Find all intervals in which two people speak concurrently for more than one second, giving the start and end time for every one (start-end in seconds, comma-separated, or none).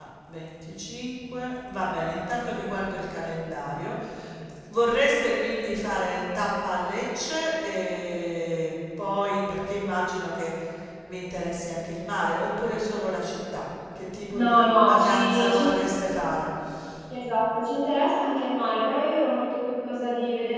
14.3-16.0